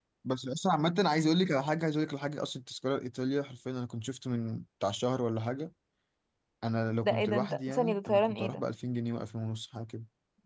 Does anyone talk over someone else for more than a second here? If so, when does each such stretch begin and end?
7.0-8.6

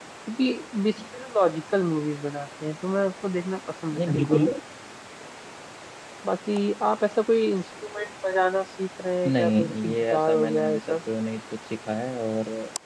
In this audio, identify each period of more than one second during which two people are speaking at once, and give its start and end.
9.3-11.0

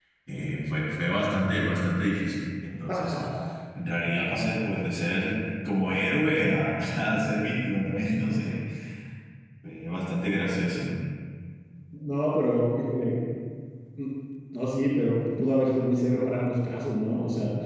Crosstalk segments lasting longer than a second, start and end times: none

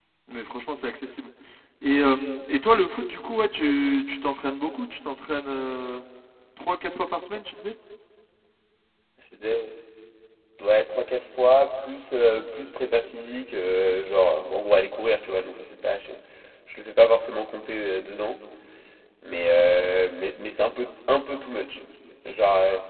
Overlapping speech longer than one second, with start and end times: none

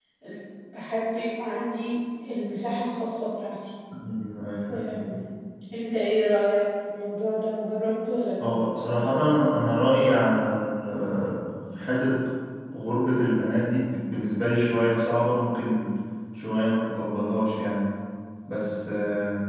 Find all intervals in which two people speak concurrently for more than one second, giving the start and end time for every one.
none

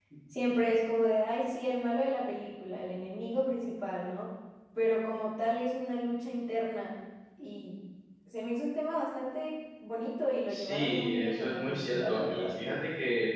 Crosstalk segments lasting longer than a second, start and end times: 10.5-12.5

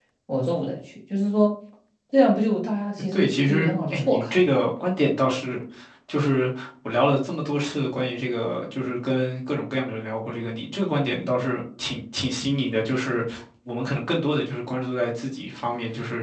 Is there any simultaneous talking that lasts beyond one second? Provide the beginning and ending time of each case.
3.1-4.5

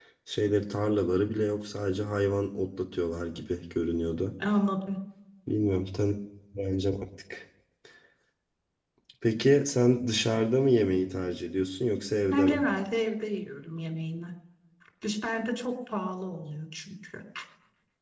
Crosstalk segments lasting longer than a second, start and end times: none

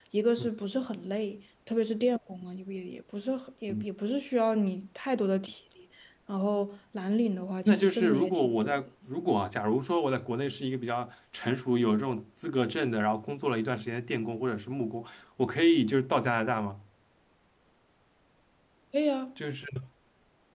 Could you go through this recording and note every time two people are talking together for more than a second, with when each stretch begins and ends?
7.7-8.9

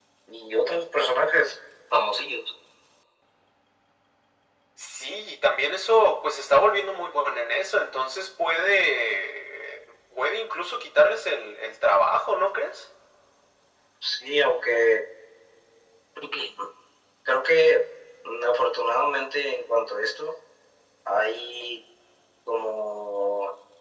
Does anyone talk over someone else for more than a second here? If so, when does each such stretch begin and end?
none

